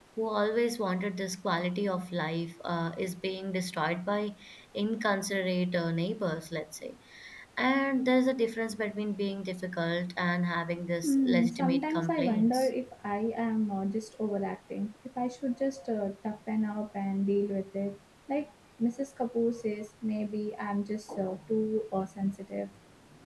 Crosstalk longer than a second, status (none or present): present